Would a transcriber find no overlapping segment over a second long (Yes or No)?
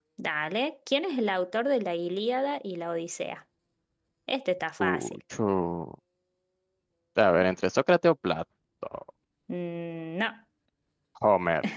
Yes